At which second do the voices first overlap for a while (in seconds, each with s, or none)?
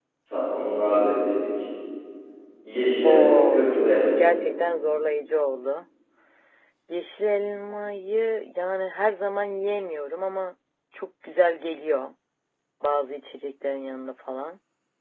3.0 s